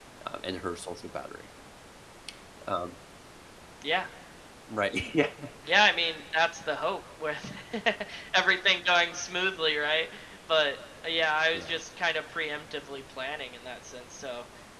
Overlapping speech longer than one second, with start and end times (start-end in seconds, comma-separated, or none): none